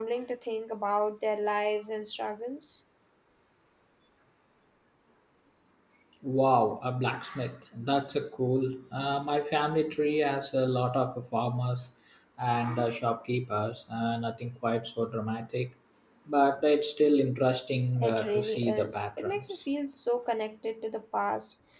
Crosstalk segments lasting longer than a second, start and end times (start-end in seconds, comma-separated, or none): 18.0-19.6